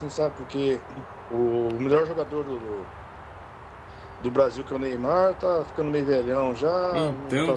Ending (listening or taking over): listening